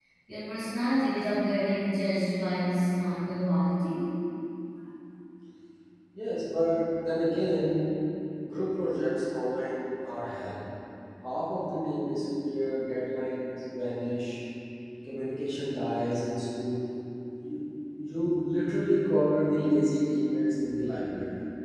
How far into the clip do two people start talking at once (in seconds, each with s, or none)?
none